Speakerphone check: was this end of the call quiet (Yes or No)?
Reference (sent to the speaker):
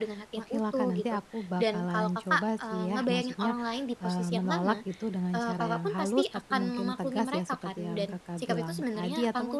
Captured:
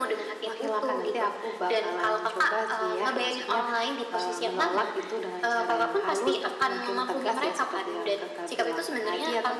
Yes